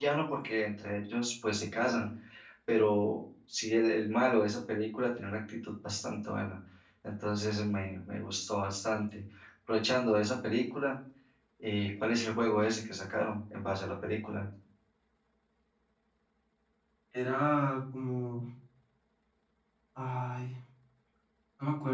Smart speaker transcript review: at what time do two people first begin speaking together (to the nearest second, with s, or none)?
none